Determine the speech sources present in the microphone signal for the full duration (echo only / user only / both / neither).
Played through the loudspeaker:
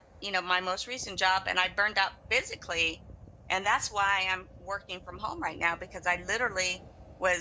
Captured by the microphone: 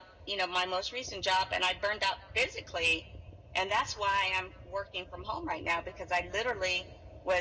echo only